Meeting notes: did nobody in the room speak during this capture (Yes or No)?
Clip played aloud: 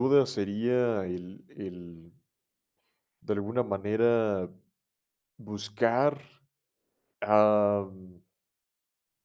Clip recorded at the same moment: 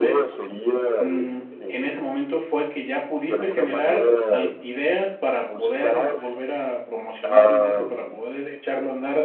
No